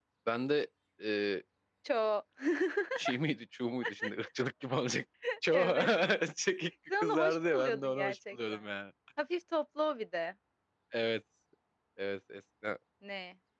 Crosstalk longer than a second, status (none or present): present